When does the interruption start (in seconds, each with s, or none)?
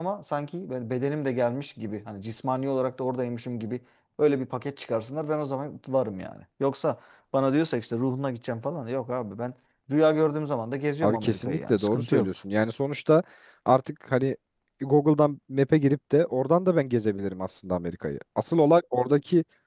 11.0 s